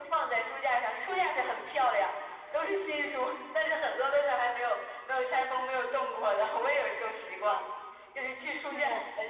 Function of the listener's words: listening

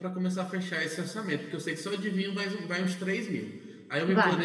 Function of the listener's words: listening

